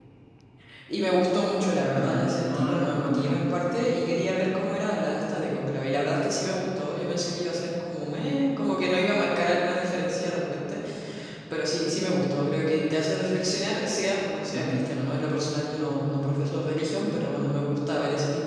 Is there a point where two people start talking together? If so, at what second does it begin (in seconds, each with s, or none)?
1.9 s